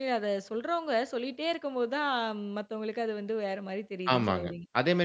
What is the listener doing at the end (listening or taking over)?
taking over